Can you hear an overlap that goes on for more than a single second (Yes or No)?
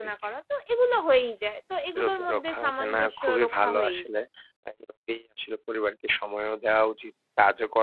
Yes